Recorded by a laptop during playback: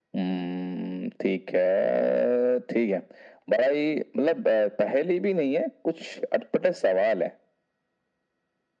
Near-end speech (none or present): none